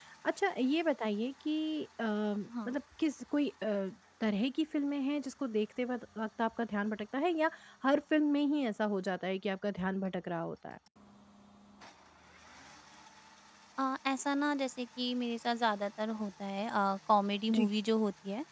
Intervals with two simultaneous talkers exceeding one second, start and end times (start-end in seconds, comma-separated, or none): none